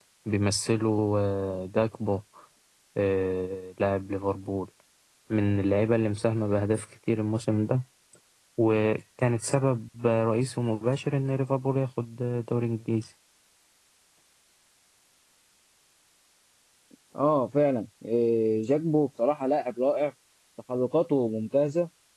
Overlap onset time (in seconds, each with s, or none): none